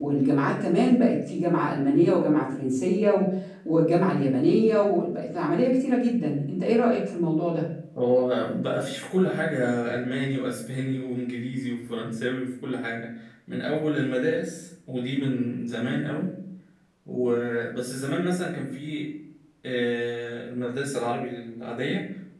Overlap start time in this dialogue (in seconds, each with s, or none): none